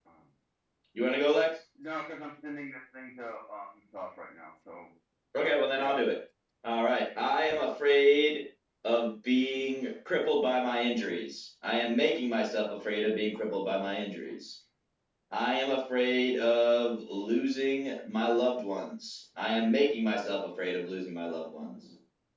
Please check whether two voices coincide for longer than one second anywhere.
No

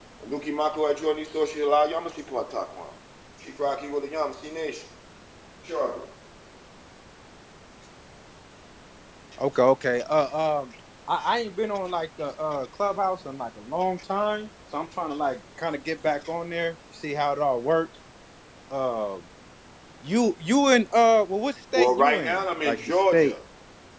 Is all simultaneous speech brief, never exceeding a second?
No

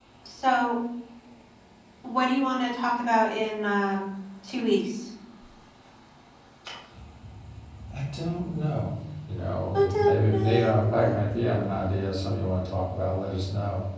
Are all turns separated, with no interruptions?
No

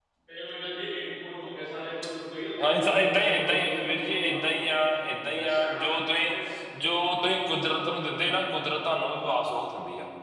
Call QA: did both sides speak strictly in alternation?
No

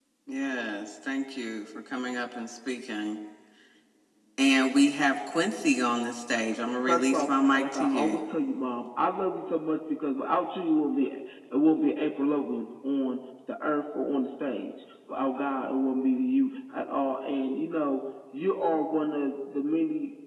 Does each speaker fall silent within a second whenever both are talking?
No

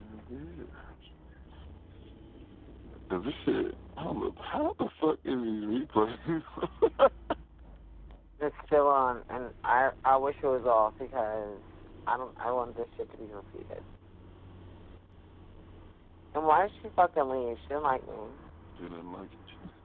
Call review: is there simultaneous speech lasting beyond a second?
No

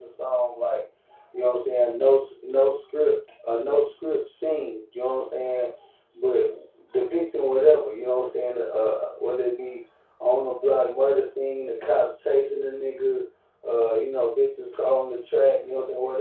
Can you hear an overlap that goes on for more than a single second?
No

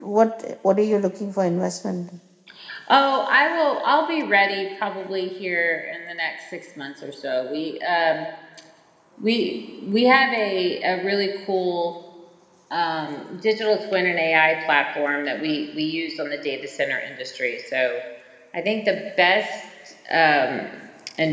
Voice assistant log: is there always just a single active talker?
Yes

